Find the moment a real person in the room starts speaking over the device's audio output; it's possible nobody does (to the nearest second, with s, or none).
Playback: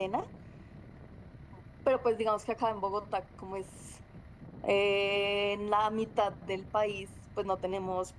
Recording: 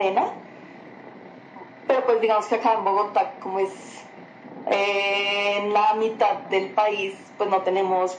none